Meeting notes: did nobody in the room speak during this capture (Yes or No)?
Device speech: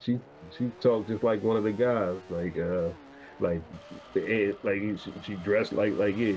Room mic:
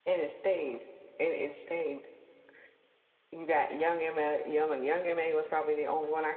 No